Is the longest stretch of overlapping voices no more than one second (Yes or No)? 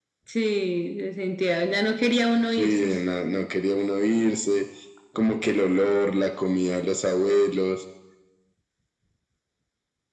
Yes